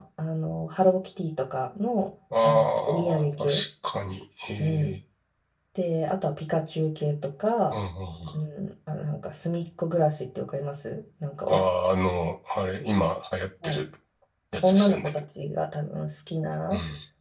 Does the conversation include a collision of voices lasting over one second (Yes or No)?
Yes